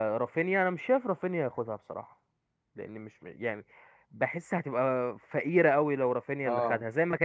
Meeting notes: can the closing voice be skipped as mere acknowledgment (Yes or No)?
Yes